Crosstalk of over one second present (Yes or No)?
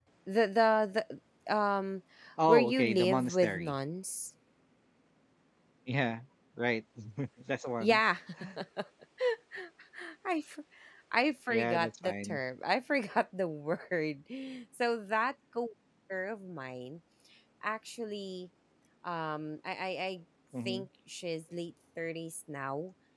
Yes